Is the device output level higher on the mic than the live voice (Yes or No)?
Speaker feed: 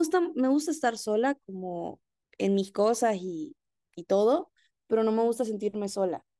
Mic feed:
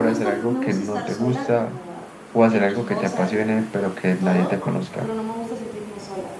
No